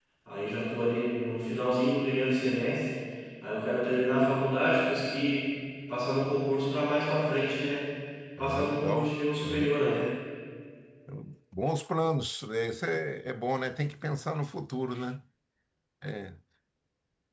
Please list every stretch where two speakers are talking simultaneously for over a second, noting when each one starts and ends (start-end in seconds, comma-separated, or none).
8.4-10.1